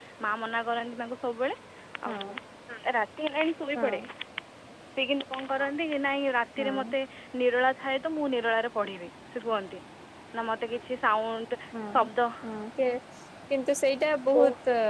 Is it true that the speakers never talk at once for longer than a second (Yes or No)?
Yes